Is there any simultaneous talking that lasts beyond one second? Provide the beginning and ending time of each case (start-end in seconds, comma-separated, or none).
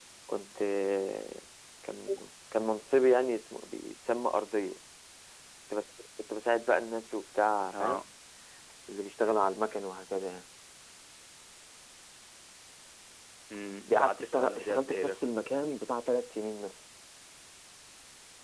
13.9-15.2